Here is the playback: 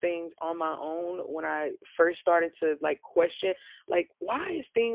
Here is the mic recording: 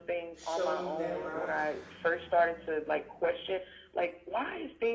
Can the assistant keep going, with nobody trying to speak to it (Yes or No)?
No